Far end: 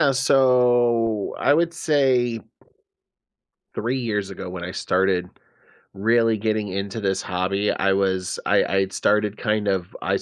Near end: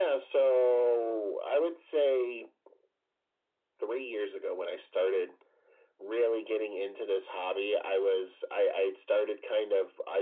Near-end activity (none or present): none